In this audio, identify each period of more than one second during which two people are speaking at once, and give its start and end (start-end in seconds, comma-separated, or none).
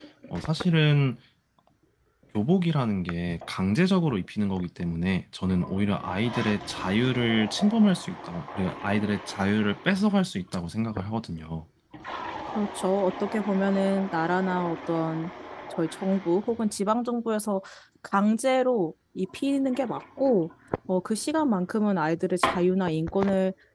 none